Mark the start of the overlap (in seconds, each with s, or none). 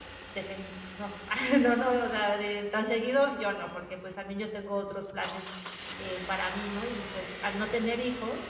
none